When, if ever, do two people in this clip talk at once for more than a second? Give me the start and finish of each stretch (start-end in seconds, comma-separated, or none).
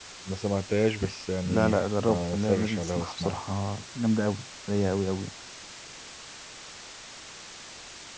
1.4-3.4